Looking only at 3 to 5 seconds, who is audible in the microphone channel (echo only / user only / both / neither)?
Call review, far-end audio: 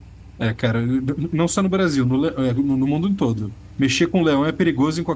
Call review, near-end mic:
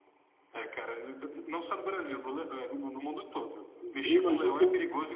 both